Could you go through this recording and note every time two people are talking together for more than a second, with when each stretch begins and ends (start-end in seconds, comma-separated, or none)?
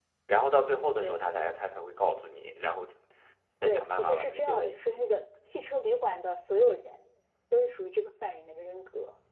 3.6-5.0